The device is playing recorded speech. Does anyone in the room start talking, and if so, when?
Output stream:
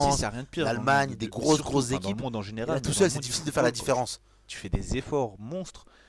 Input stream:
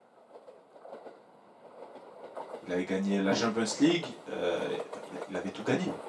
2.6 s

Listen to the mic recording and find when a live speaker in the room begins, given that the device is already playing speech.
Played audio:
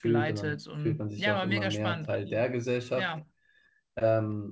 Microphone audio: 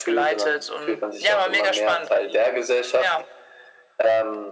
none

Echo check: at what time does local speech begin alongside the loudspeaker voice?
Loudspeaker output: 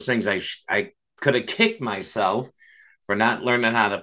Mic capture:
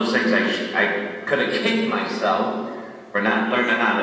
none

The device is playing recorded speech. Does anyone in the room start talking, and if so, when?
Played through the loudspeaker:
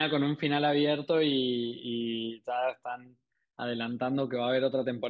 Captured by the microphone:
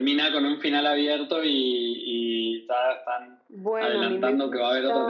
3.5 s

